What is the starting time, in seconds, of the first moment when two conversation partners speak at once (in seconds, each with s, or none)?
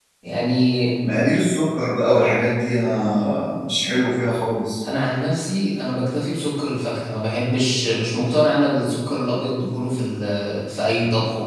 none